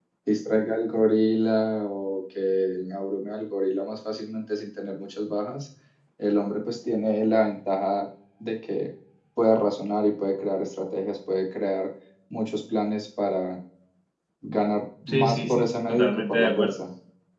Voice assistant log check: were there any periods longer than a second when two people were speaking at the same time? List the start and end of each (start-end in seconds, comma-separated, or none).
15.1-16.8